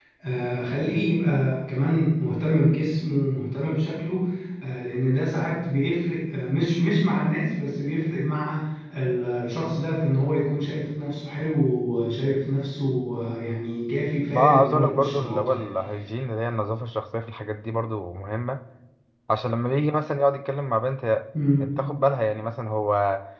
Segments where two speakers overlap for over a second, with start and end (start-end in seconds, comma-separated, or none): 14.3-15.6